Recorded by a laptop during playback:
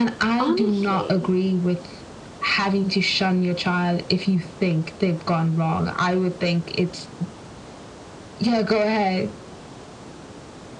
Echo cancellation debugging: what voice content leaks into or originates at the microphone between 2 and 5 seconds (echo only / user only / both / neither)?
echo only